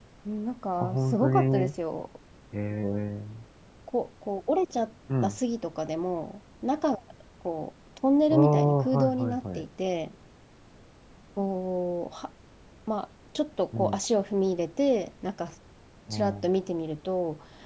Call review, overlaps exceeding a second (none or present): present